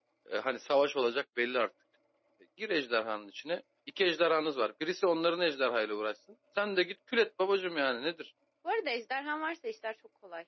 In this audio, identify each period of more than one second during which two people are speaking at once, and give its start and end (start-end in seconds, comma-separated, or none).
none